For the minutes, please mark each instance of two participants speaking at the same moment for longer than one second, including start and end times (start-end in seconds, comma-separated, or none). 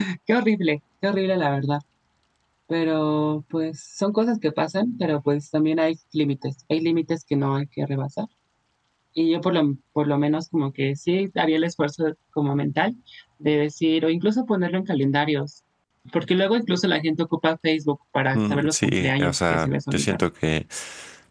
18.3-20.2